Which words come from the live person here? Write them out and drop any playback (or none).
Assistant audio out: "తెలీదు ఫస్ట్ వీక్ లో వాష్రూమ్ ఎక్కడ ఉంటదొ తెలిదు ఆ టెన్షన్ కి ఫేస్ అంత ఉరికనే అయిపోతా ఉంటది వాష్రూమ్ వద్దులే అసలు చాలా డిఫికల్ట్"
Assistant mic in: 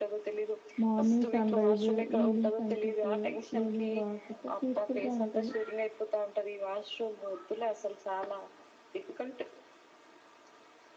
మార్నింగ్ సన్ రైజ్ ఈవినింగ్ సన్సెట్ ఈవినింగ్ వాక్ అట్లా పీస్ ఫుల్ గా ఉంటది